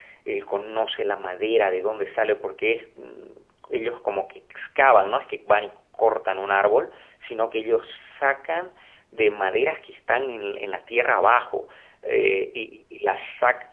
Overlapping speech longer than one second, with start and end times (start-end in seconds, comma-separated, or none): none